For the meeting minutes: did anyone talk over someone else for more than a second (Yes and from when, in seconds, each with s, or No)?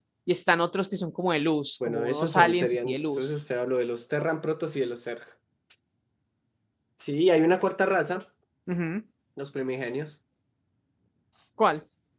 Yes, from 1.8 s